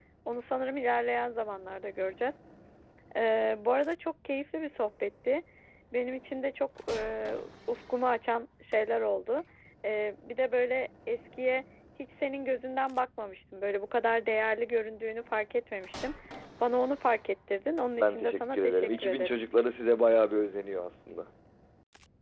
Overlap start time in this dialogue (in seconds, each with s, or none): 18.0 s